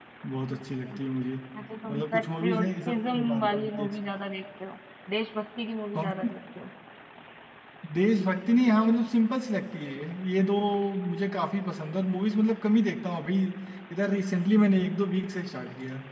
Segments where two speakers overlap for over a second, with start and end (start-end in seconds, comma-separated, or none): 1.9-3.9